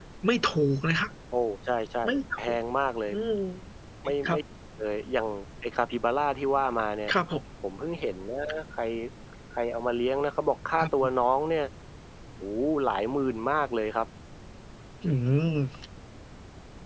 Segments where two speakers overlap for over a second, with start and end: none

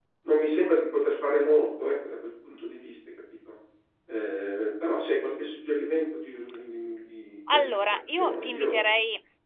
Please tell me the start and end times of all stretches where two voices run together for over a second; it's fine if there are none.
7.5-8.8

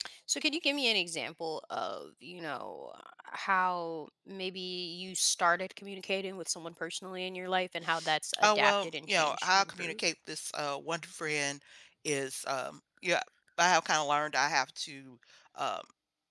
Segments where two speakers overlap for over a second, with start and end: 8.4-10.0

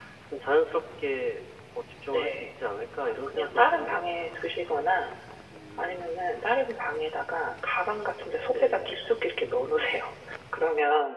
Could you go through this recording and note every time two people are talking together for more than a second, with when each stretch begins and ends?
3.1-4.4

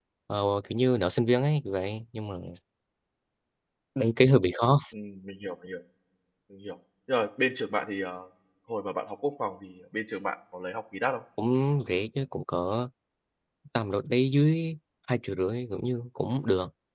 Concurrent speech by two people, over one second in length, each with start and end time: none

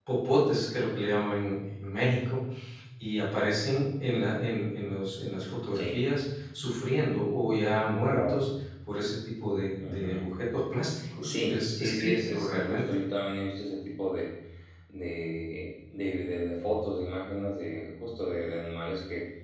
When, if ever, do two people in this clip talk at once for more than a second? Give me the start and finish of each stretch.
11.2-12.8

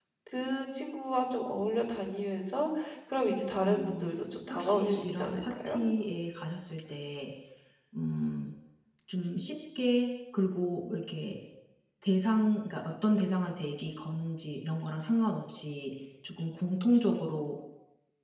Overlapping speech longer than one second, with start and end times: 4.5-5.8

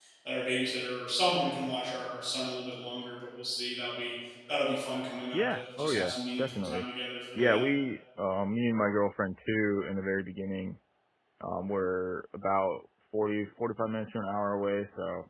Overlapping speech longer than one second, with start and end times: 5.3-6.8

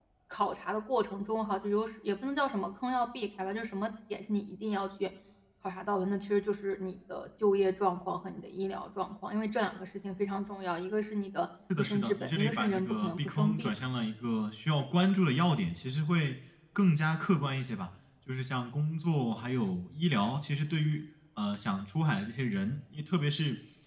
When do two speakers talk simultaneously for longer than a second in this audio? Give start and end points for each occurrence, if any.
11.8-13.7

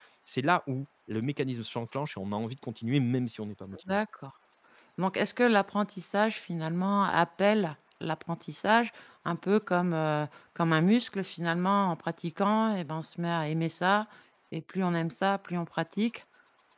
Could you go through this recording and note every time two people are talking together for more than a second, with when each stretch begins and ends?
none

